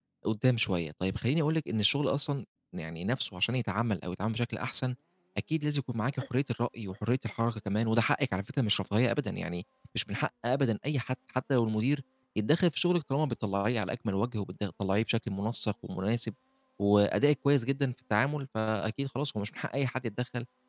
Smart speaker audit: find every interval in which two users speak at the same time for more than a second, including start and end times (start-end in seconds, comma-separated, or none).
none